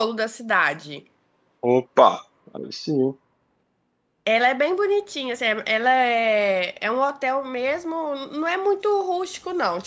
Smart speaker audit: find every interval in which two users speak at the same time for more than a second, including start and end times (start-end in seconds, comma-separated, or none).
none